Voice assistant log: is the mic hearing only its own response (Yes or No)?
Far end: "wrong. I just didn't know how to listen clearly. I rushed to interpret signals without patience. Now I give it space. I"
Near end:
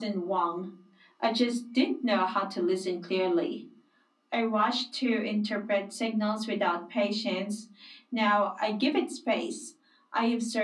Yes